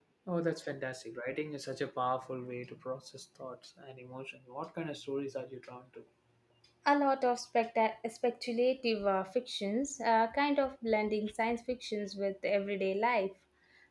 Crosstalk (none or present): none